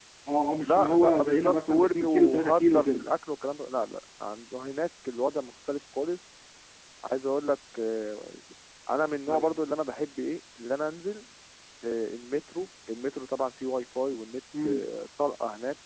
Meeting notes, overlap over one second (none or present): present